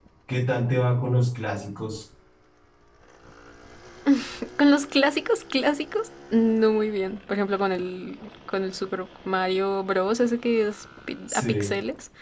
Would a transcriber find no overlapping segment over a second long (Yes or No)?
Yes